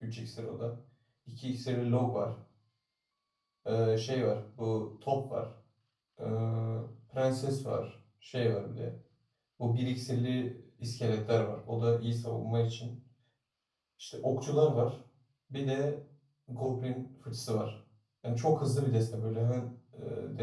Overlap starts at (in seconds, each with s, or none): none